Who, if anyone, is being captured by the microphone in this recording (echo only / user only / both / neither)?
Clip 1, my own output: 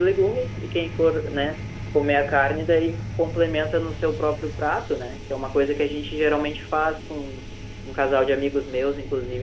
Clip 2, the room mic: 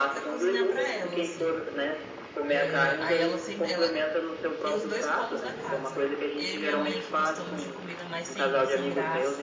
both